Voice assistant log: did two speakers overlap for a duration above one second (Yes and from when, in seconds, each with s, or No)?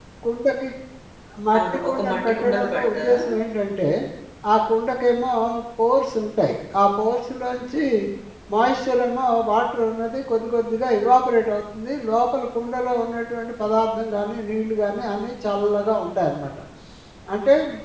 Yes, from 1.6 s